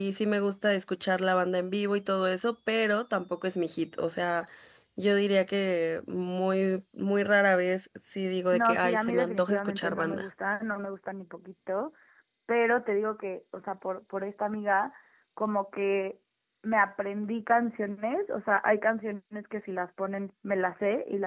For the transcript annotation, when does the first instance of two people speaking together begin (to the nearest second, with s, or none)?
9 s